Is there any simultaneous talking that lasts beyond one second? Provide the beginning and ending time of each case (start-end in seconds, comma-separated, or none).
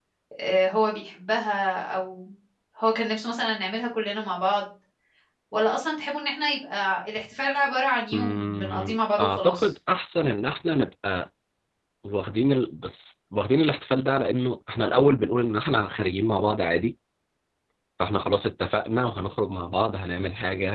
8.1-9.7